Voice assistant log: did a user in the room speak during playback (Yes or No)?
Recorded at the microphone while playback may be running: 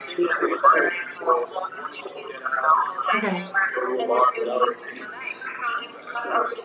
Yes